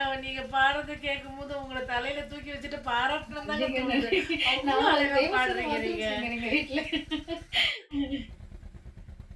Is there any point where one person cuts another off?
Yes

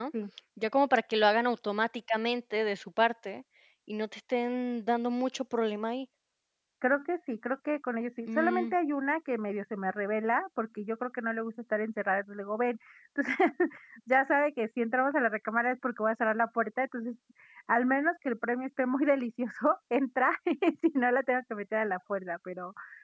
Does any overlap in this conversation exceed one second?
No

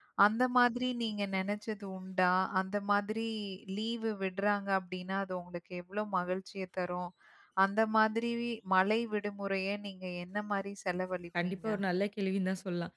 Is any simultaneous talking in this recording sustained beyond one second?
No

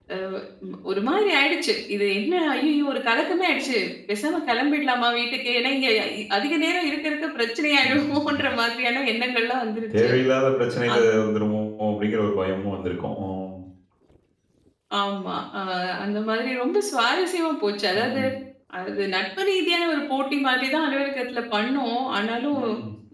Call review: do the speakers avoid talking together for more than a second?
Yes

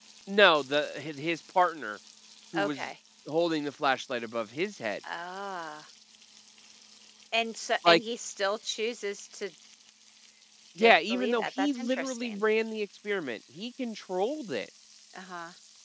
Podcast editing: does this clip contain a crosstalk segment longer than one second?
Yes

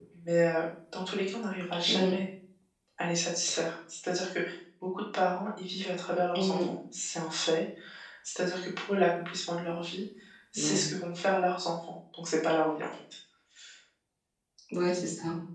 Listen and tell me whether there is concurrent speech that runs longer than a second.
No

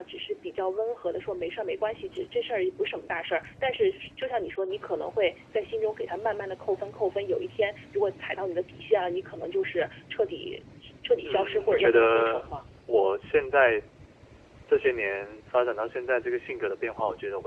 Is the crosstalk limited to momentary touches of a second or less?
No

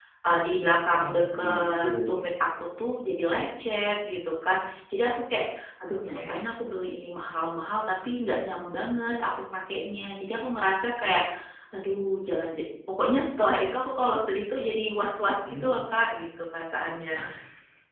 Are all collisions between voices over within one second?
No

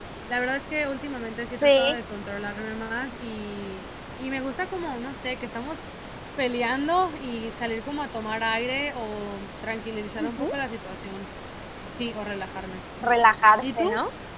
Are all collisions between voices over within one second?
Yes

